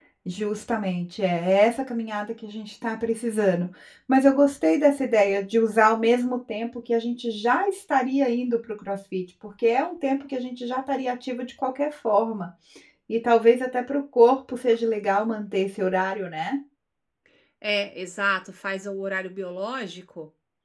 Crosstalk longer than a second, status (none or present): none